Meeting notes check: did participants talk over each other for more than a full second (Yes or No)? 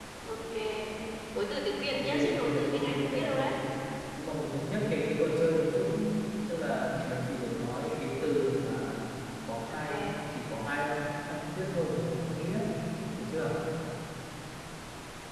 Yes